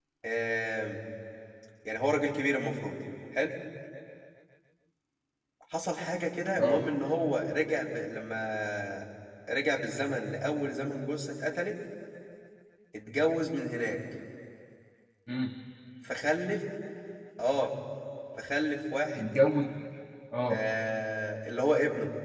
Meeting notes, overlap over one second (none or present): none